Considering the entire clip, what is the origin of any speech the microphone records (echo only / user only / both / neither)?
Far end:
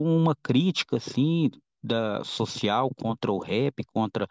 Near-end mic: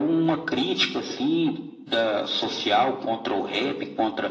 echo only